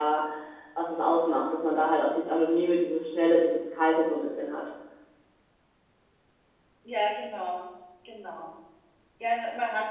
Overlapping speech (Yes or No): No